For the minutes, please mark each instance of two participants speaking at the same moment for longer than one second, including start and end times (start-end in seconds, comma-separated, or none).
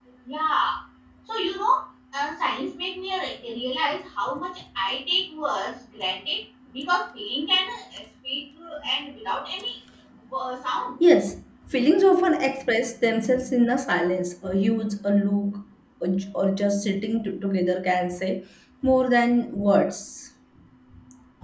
none